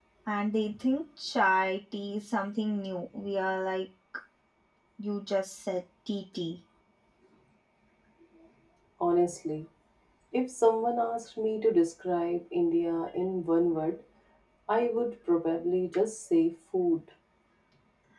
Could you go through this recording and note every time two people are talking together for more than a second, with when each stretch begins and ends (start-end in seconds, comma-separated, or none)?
none